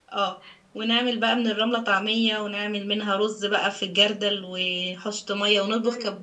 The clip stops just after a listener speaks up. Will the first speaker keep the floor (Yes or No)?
Yes